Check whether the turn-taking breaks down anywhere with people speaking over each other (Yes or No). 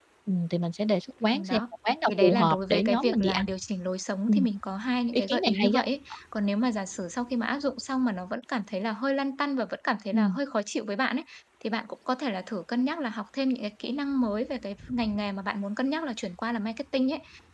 Yes